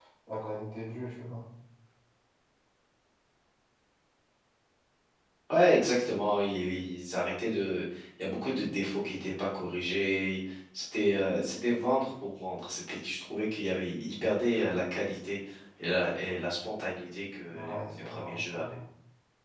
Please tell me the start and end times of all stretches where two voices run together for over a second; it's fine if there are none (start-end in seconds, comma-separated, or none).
17.5-18.8